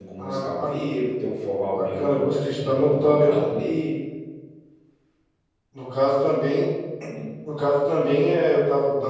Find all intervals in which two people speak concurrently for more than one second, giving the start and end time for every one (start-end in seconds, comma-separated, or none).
1.7-3.4